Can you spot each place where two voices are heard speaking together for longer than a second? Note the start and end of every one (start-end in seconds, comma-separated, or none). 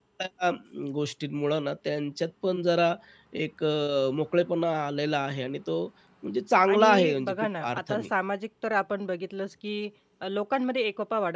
6.7-8.1